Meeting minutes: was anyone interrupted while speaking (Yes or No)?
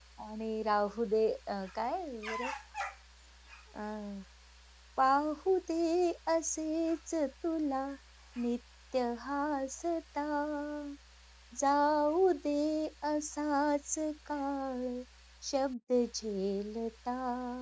No